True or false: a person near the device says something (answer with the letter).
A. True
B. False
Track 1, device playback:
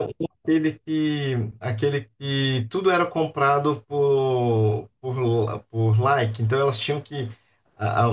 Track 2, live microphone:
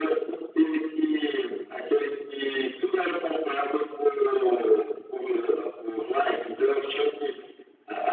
B